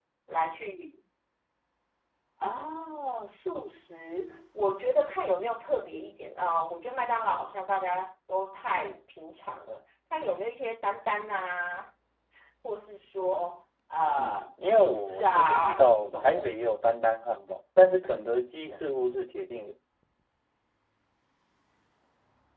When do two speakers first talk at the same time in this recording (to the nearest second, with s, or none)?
14 s